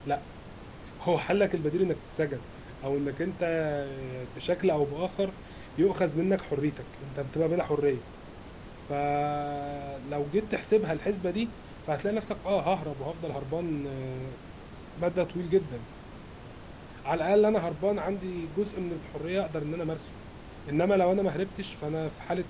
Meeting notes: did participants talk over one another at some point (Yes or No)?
No